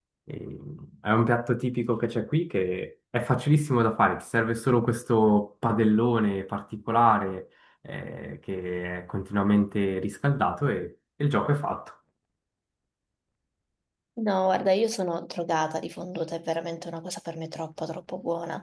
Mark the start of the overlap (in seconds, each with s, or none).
none